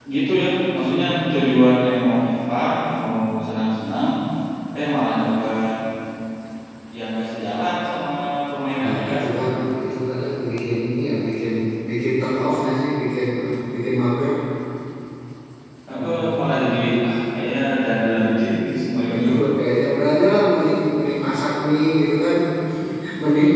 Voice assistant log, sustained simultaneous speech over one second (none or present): none